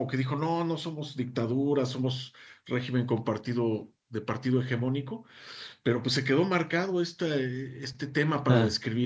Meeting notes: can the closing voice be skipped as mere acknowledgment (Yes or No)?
Yes